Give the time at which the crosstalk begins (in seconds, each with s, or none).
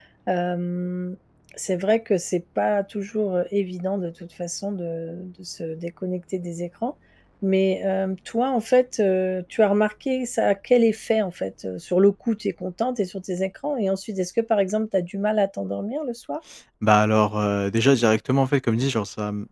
none